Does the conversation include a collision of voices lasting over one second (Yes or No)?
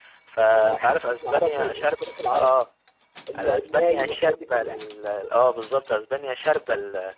Yes